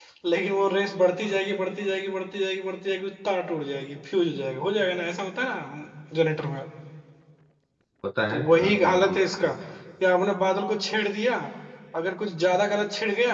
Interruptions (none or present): present